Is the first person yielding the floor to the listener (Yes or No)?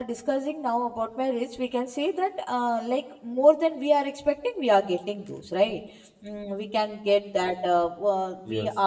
No